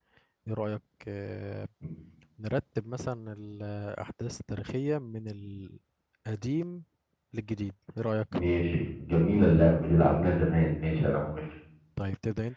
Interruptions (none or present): none